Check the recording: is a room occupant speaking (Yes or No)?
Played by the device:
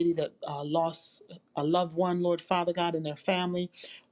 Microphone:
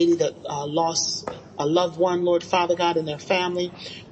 No